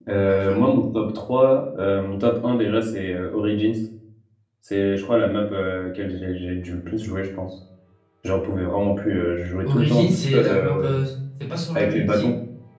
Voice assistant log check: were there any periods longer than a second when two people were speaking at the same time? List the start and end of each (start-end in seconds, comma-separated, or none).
9.6-10.8